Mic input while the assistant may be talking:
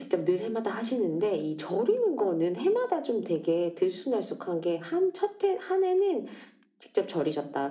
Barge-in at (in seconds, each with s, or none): none